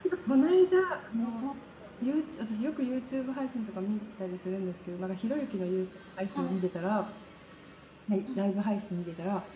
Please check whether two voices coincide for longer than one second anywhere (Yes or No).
No